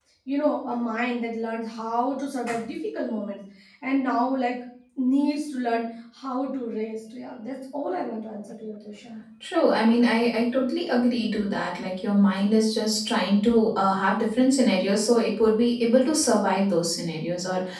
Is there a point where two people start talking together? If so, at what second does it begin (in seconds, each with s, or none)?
none